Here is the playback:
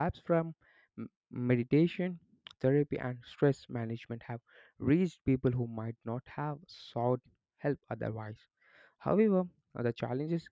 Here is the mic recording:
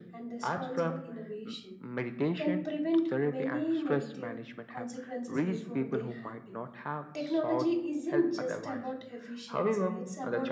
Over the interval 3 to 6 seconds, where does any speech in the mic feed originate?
both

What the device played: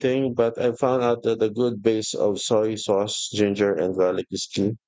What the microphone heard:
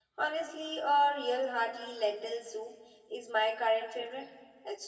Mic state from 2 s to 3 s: user only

